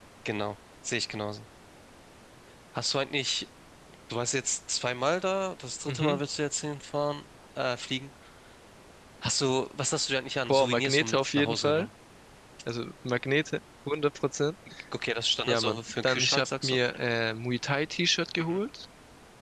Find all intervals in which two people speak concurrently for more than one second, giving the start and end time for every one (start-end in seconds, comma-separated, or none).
10.5-11.9, 15.5-16.8